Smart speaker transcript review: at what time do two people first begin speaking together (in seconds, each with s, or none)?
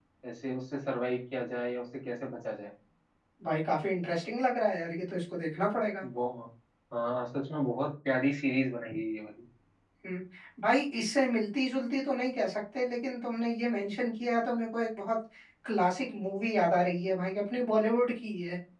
none